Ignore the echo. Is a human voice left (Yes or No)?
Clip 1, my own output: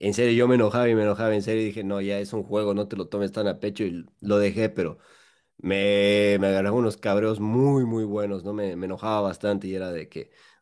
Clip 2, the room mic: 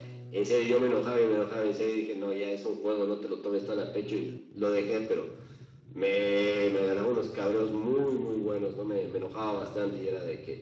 No